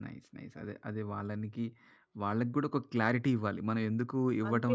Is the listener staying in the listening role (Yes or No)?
Yes